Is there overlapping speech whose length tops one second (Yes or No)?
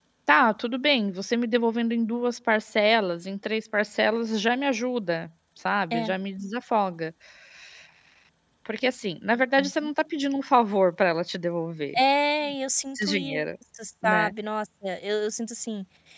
No